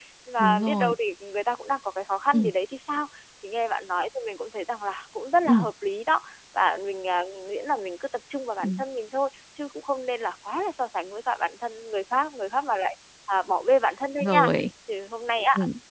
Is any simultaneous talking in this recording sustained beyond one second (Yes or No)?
No